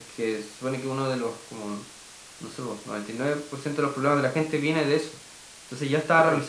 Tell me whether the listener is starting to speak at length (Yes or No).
No